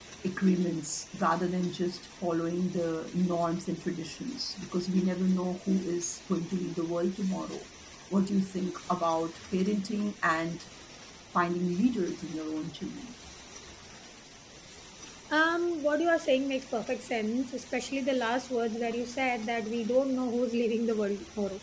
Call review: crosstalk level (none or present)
none